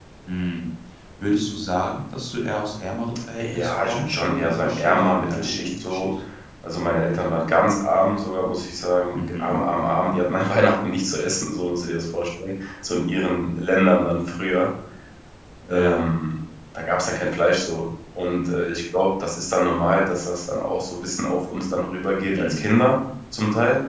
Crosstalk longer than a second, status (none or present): present